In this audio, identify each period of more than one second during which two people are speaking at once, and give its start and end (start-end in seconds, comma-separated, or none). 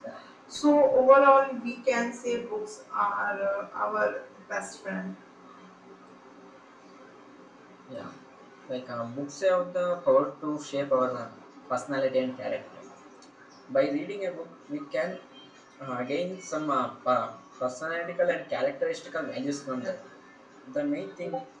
none